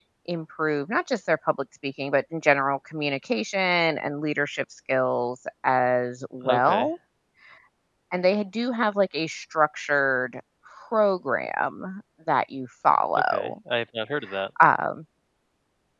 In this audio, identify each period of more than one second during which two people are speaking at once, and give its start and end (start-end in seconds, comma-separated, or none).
none